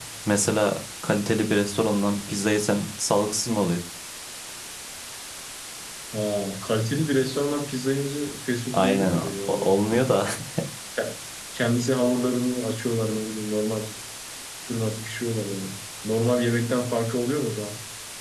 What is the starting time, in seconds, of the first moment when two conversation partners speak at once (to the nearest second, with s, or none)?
9 s